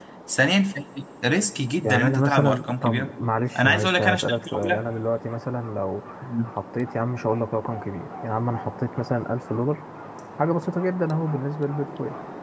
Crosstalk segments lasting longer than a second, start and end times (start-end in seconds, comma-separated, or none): 1.8-3.1, 3.6-4.8